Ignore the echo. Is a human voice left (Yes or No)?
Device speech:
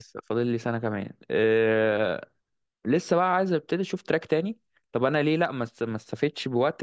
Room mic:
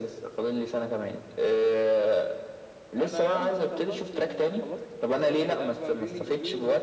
Yes